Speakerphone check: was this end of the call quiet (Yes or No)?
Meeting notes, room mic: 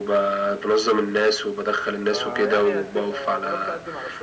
No